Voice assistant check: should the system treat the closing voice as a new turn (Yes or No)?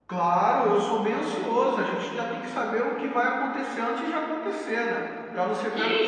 Yes